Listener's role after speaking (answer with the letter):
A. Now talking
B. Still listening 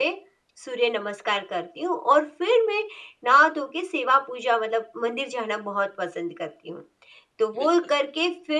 B